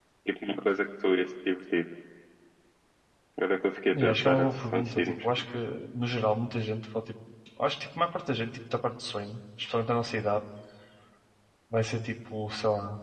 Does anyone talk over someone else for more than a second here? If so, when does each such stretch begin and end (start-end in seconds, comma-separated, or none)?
3.9-5.2